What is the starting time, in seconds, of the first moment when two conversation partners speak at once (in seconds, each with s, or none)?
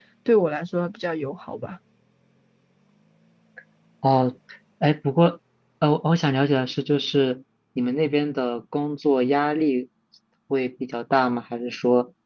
none